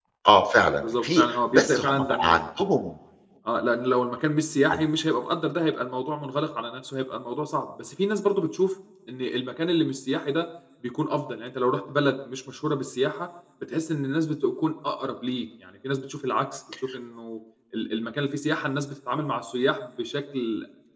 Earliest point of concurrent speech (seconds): 0.8 s

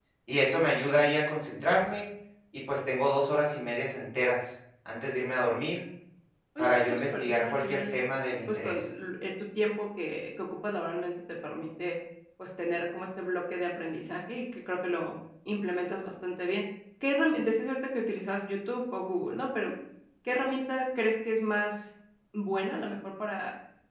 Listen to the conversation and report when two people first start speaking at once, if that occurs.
6.6 s

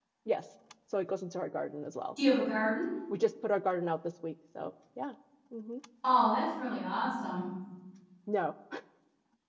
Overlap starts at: none

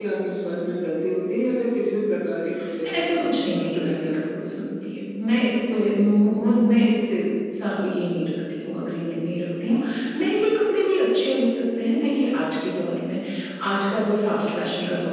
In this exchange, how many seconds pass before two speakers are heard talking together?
2.8 s

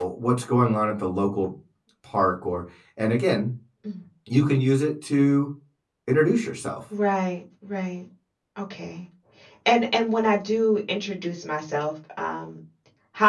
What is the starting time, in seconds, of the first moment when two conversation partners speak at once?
none

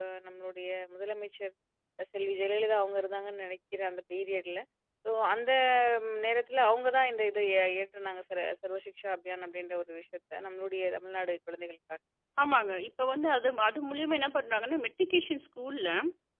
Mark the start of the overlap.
none

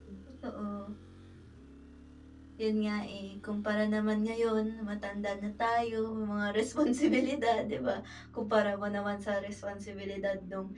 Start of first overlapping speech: none

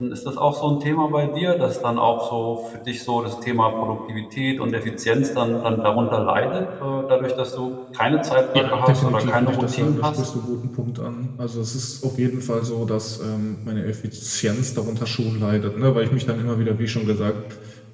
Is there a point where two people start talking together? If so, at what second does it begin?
8.5 s

